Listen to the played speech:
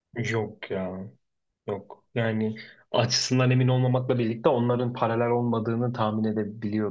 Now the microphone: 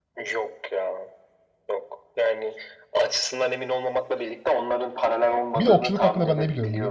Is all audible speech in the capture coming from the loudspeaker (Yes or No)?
No